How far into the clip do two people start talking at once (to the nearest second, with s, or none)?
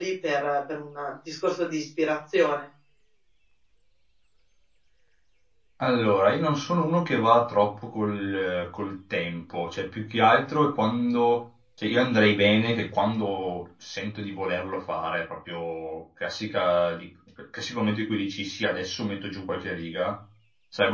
none